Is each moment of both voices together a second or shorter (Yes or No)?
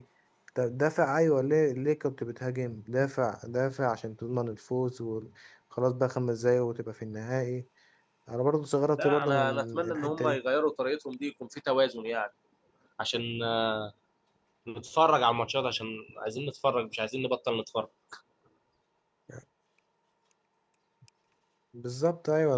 No